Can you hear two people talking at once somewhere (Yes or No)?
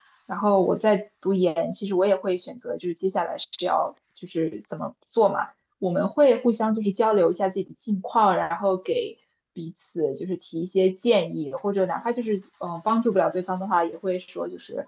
No